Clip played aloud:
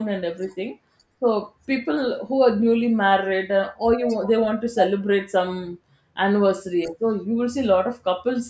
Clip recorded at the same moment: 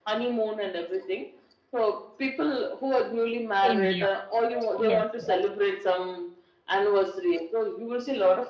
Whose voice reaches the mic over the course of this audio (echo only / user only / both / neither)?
both